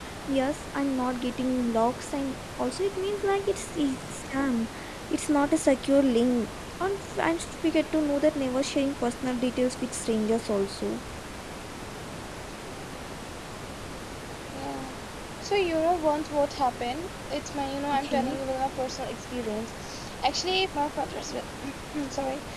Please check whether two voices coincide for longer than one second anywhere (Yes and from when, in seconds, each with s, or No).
No